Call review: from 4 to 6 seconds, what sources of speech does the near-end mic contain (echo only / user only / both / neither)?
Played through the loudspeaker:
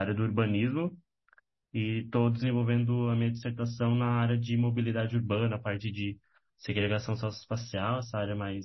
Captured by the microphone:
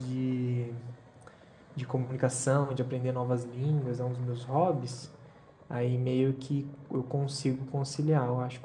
user only